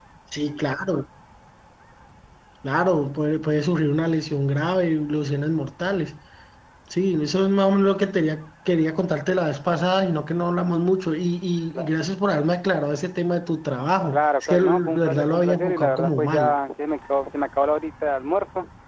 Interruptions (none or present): present